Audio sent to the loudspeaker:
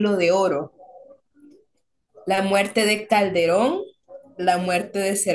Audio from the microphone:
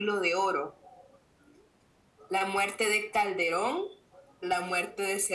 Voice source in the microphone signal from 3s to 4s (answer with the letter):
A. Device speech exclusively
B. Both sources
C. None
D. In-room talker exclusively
A